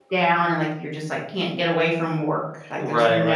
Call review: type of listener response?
taking over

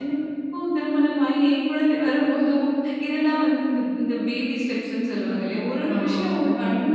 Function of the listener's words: listening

